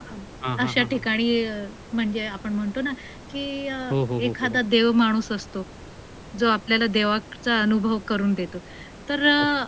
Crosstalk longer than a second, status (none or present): none